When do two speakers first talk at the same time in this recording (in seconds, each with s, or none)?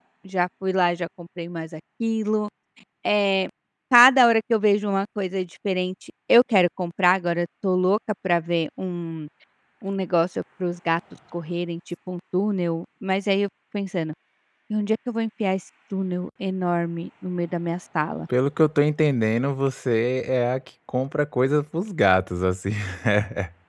none